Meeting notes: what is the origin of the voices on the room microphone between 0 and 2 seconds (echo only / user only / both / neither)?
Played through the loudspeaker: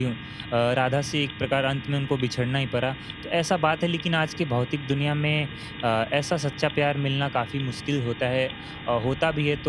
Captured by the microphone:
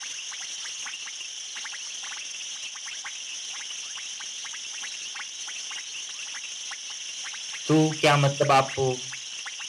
neither